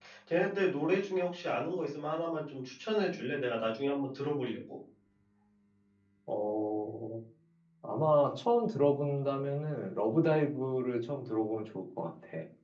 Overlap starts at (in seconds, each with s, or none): none